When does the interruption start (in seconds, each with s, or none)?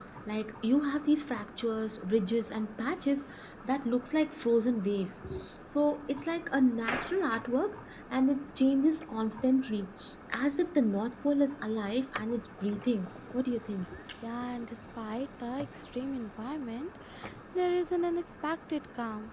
none